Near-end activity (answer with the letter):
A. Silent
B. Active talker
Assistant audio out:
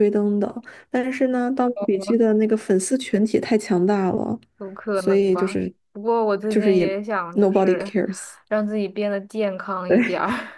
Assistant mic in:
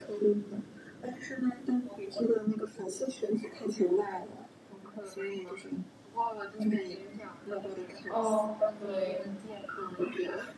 B